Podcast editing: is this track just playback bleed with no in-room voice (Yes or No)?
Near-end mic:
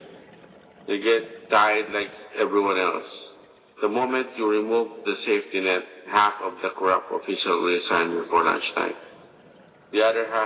Yes